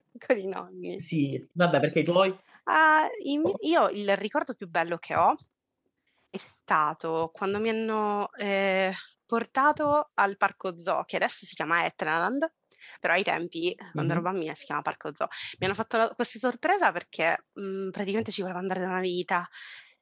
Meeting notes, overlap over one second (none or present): none